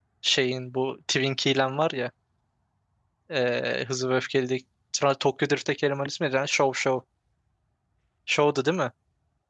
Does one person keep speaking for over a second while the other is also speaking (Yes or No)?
No